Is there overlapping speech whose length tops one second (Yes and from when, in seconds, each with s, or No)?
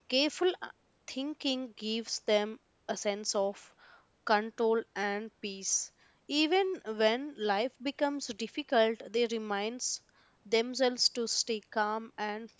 No